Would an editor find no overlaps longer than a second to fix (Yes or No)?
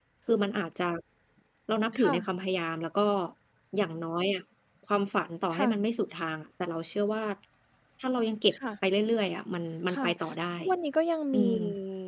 Yes